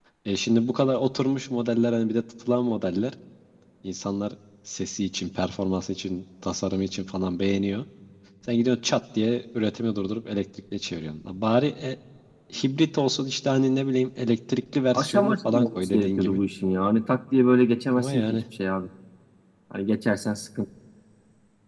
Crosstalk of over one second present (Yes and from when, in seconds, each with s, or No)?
Yes, from 14.9 s